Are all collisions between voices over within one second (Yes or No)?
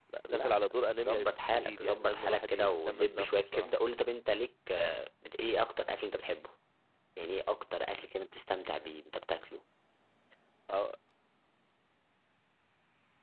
No